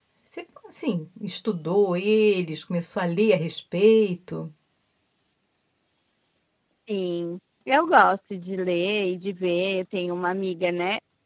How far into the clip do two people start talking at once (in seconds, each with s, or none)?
none